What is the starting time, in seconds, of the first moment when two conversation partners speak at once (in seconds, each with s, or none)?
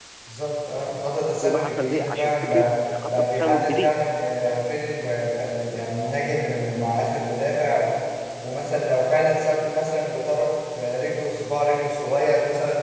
1.4 s